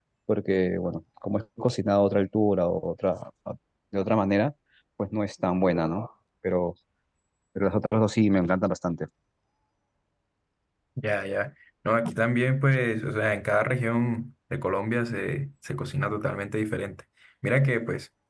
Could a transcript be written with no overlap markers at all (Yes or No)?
Yes